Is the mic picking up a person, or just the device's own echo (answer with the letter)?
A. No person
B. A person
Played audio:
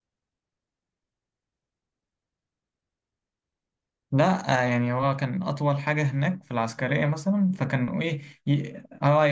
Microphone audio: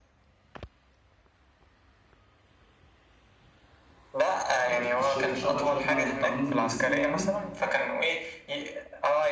B